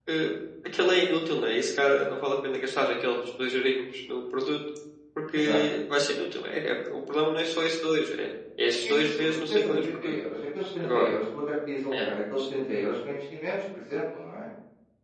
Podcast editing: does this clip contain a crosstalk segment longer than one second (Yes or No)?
Yes